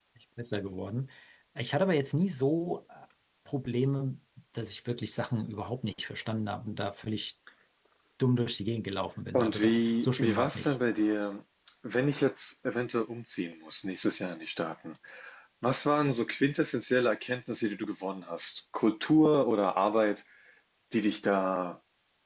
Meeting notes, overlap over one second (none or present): present